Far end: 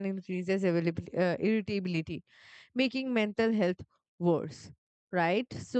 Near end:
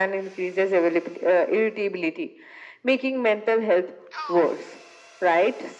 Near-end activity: none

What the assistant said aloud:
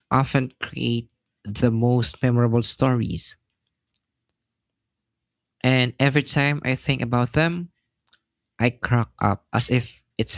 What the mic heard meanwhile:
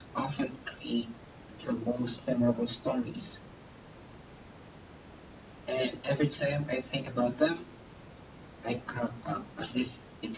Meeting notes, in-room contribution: none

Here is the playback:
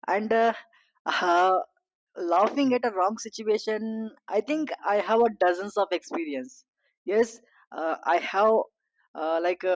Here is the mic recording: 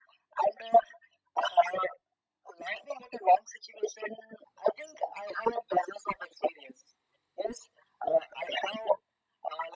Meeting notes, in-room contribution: none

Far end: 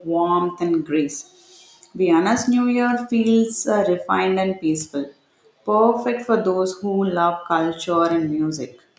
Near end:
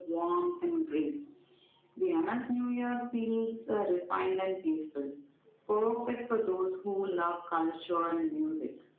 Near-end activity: none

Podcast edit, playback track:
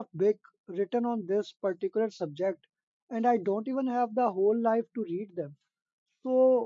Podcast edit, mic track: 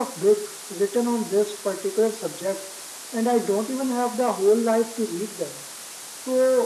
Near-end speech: none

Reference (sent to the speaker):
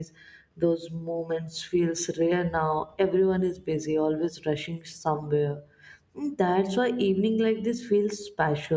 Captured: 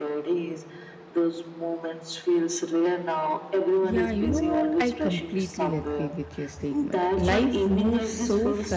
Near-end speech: present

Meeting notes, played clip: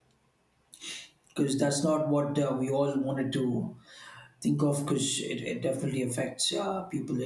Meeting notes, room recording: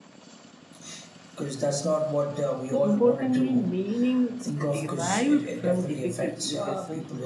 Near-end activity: present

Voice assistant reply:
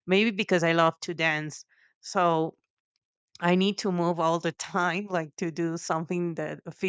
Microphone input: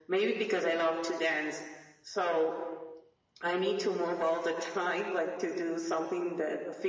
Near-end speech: none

